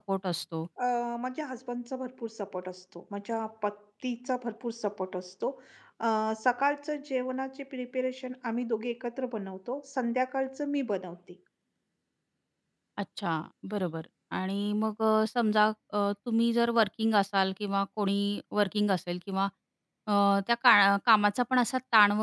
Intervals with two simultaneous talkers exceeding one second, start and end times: none

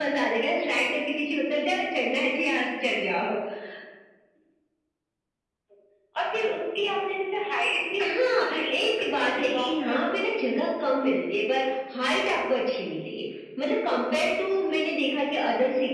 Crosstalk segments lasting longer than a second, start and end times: 8.0-10.9

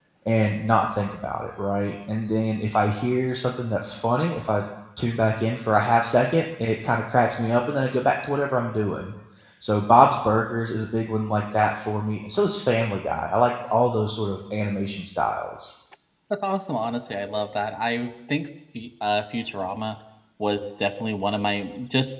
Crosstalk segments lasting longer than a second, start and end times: none

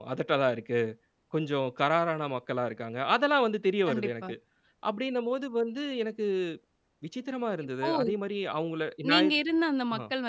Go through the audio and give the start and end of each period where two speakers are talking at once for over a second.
none

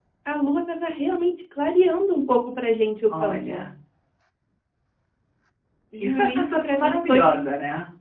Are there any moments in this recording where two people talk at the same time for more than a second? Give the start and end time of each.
6.0-7.4

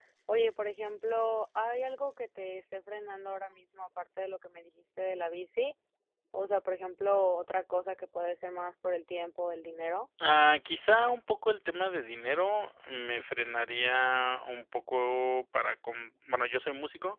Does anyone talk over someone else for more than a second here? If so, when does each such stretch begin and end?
none

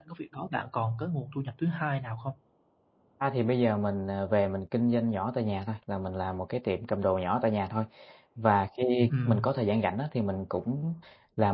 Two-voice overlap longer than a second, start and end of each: none

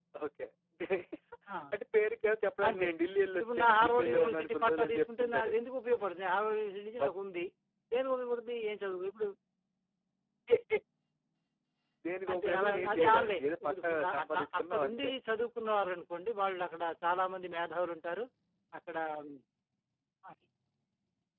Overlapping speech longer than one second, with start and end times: 3.4-5.5, 12.3-15.1

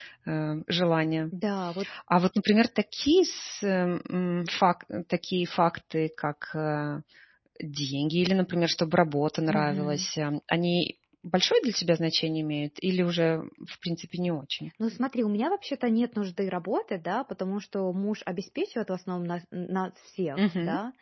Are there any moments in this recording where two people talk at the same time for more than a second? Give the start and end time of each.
none

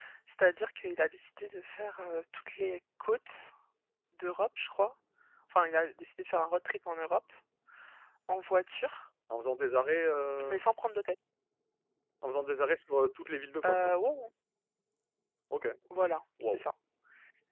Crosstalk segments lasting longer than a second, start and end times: none

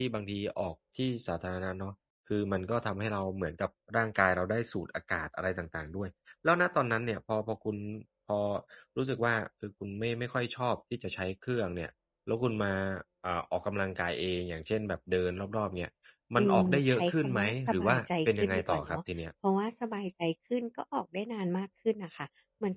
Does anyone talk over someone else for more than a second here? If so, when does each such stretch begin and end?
16.4-19.0

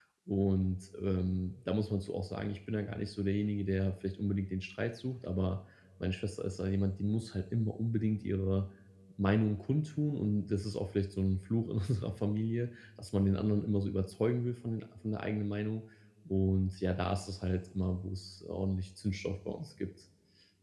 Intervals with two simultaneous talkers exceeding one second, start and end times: none

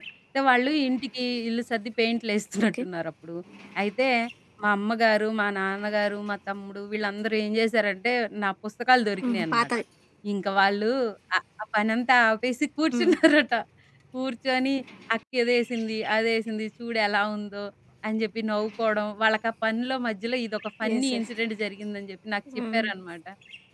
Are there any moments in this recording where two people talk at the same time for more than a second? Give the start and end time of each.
none

